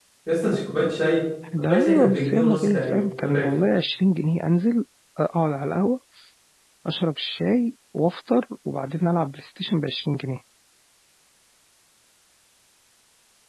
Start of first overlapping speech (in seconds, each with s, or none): 1.5 s